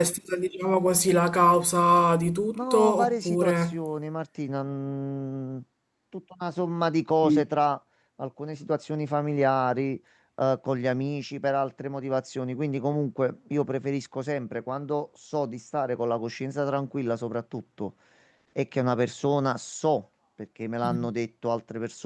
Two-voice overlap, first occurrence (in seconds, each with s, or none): 2.5 s